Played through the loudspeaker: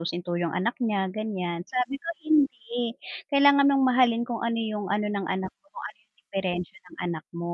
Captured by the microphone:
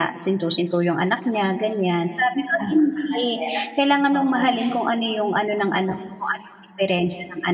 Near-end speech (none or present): present